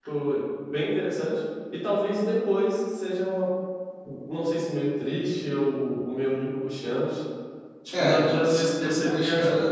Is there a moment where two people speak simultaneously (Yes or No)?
Yes